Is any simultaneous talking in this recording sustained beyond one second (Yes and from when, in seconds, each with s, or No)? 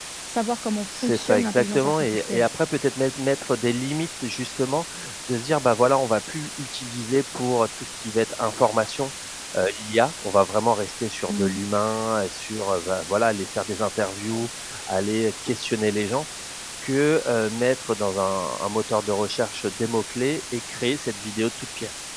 Yes, from 1.0 s